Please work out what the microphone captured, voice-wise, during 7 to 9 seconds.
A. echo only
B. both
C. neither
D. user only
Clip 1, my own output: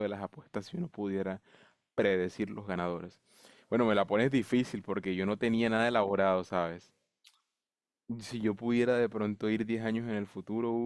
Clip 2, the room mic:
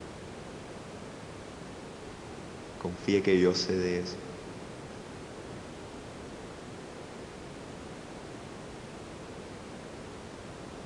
C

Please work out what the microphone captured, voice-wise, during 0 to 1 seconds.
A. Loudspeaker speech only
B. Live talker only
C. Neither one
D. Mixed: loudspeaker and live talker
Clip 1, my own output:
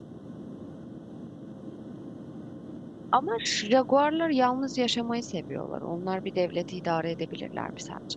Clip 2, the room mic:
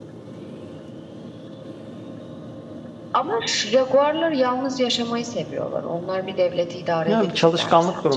C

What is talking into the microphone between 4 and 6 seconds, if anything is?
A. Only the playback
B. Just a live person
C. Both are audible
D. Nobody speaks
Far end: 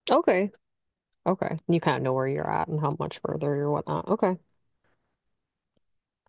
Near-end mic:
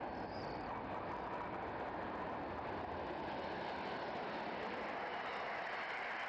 D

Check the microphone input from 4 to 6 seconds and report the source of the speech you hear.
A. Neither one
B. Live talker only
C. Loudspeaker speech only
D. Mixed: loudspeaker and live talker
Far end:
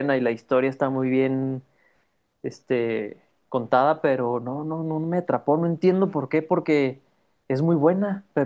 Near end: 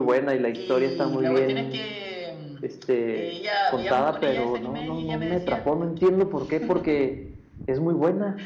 D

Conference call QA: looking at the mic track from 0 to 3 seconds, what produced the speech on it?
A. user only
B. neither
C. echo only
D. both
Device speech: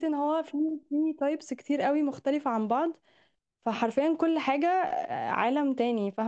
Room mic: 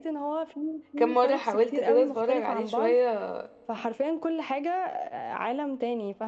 D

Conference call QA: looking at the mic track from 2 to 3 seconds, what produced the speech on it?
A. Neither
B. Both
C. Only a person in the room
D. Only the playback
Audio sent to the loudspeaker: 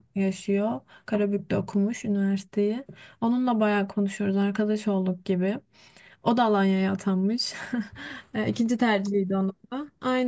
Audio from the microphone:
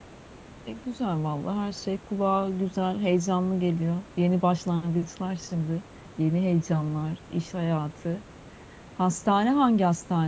C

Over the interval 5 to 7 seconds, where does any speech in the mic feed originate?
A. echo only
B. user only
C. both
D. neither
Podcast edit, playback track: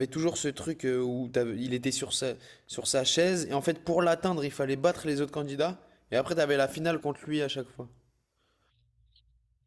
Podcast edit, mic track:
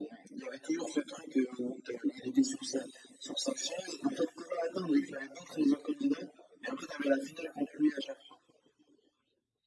A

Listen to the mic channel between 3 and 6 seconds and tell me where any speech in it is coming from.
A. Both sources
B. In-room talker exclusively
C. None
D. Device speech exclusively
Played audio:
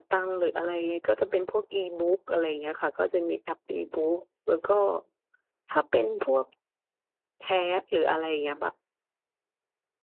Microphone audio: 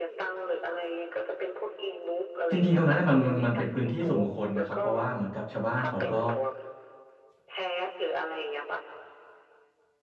A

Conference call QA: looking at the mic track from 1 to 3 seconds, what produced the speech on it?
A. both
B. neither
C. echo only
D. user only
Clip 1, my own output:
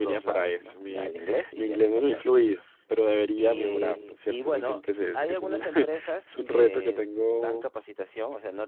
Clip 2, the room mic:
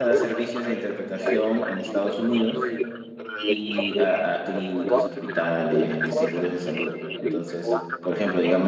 A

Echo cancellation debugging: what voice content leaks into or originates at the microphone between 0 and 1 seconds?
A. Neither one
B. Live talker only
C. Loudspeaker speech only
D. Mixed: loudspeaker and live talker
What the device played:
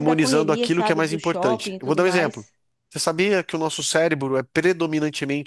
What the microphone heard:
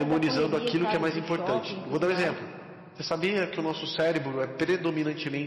C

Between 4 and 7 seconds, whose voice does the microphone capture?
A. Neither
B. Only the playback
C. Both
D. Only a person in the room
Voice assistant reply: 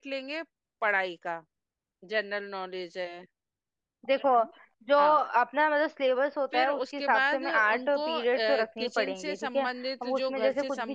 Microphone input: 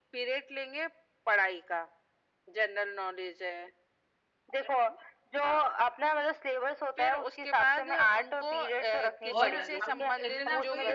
B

